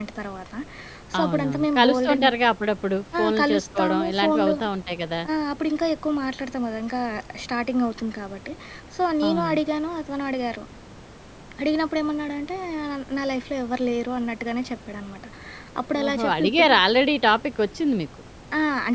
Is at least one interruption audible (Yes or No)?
Yes